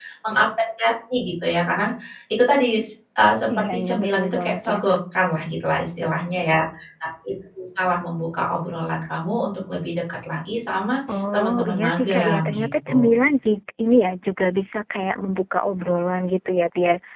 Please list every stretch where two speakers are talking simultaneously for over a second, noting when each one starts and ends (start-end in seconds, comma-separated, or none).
3.6-5.0, 11.3-13.2